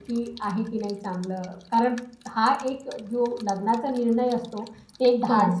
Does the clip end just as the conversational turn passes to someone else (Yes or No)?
No